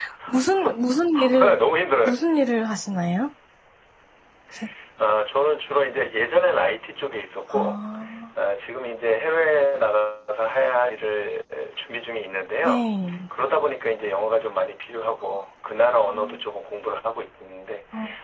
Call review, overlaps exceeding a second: none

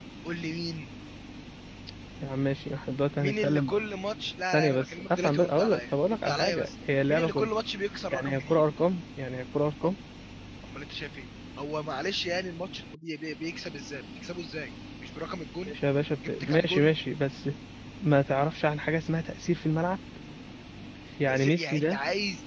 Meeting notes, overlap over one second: present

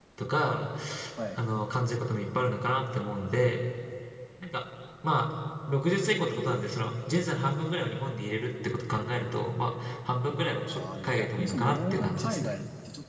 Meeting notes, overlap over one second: present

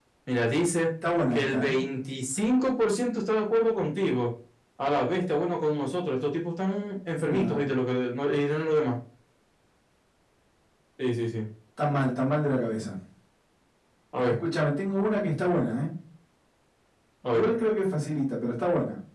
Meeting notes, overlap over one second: none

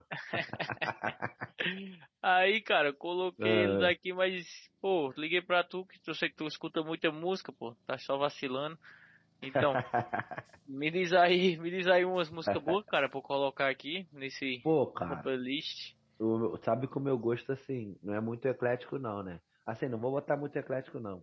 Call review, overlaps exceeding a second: none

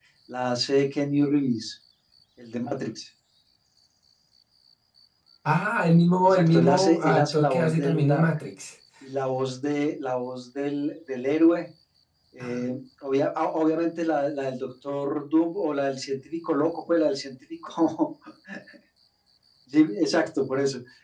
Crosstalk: present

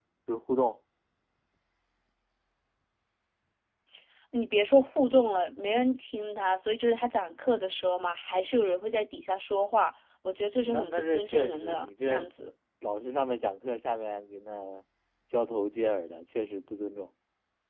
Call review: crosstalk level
present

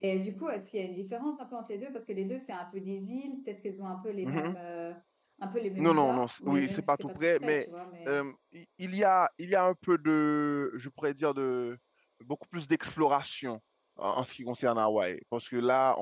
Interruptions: present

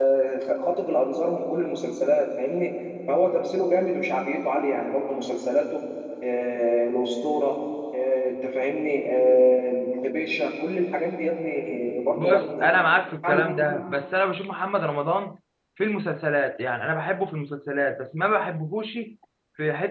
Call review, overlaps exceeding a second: none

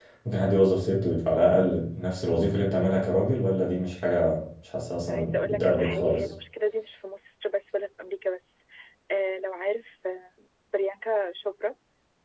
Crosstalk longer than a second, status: present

